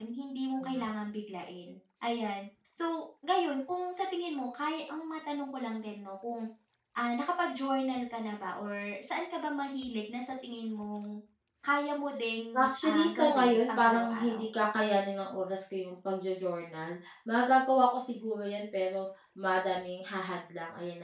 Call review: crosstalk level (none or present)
present